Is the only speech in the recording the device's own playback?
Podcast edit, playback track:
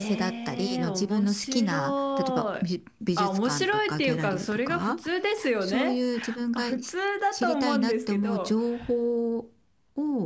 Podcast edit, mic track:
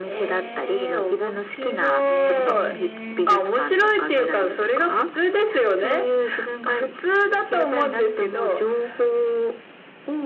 No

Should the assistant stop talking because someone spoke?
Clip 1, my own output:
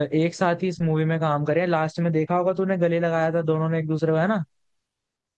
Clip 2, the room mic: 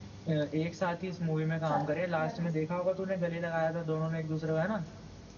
Yes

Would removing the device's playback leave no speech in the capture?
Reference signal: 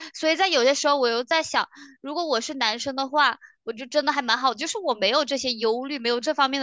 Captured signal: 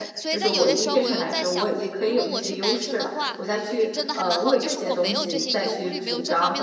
No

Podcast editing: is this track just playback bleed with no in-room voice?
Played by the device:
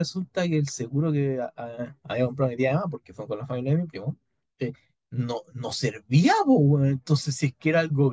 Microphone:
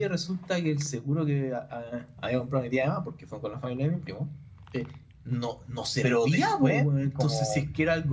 No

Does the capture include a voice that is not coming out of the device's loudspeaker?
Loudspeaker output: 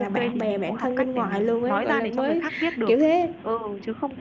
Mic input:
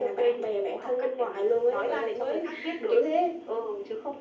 No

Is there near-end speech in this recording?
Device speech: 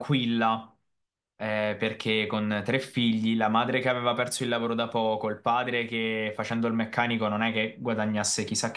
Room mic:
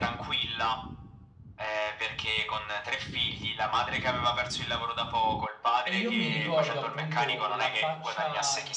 Yes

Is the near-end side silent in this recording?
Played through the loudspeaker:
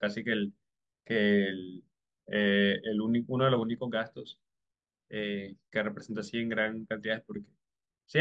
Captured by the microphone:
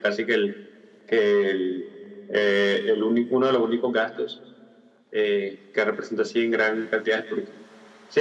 Yes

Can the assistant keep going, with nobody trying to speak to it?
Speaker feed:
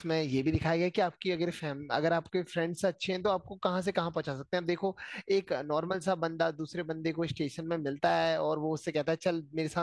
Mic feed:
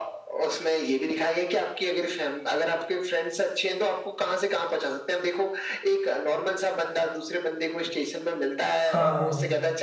No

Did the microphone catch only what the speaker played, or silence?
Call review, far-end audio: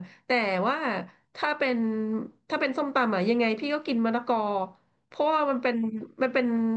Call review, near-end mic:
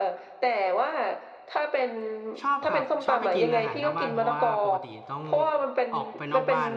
No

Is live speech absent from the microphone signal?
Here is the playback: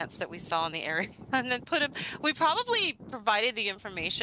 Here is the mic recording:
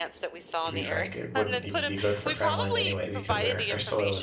No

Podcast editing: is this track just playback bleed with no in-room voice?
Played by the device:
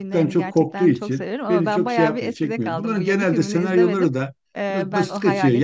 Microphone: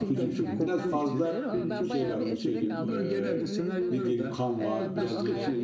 No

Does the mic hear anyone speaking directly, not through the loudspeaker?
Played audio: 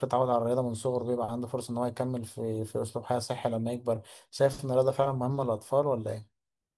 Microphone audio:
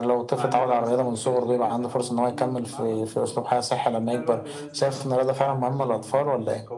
Yes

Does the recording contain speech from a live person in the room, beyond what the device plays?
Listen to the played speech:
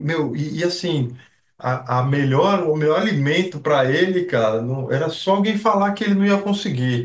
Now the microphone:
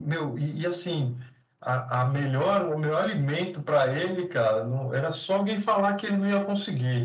No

